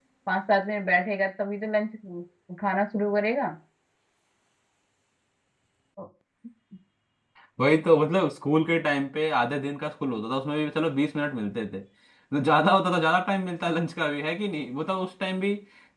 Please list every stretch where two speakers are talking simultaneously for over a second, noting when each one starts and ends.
none

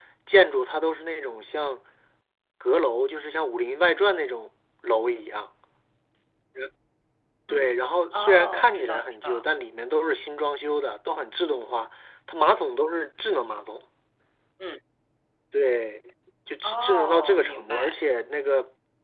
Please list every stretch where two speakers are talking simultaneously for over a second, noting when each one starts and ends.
8.1-9.4, 16.6-17.9

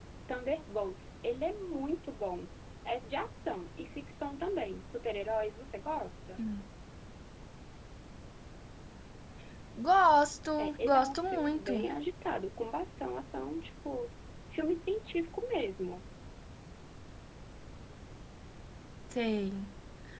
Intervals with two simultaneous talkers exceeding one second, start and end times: 10.6-11.9

